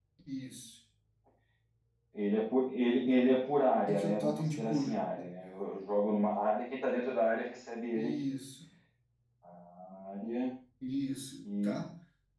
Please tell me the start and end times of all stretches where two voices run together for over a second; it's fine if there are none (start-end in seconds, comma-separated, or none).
3.9-5.3